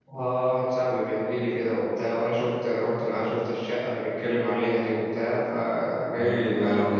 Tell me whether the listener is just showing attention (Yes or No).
No